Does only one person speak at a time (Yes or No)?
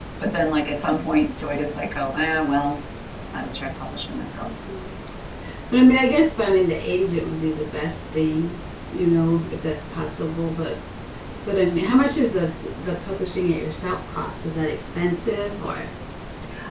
Yes